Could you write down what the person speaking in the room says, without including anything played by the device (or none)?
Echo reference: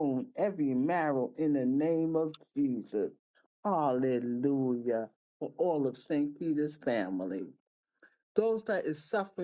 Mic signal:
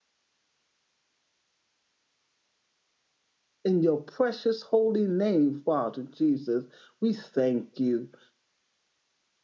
In your precious holy name, Father Jesus, we thank you.